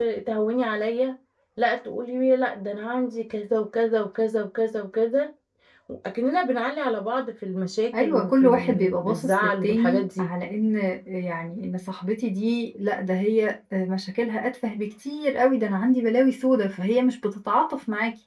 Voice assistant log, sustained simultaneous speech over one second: present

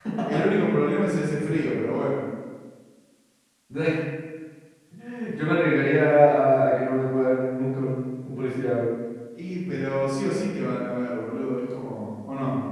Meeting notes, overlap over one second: none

